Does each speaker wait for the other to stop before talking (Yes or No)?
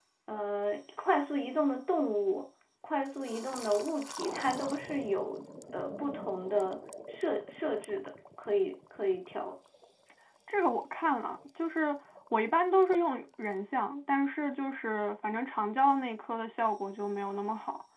Yes